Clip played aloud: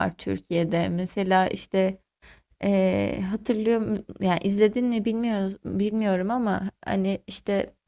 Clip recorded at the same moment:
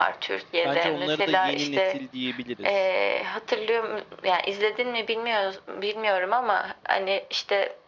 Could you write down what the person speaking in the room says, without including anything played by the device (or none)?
Bence onları da yeni nesil diyebiliriz.